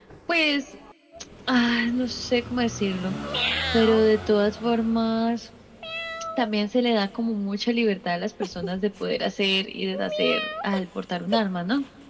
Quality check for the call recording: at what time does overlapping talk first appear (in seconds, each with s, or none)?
none